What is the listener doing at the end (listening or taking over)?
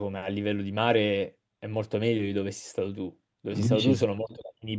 listening